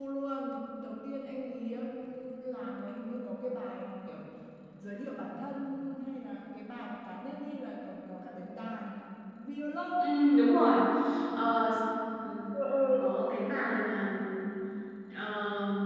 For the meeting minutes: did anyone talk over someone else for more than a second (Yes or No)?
No